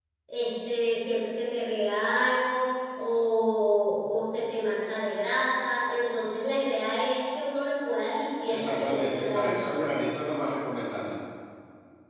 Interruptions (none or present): present